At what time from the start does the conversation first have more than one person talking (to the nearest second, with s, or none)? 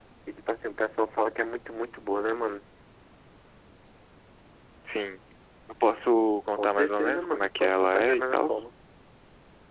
7 s